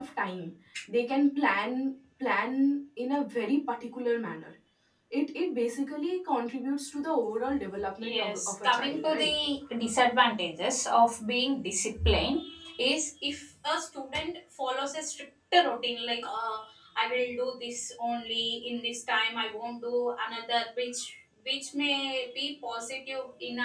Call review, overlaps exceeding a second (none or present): present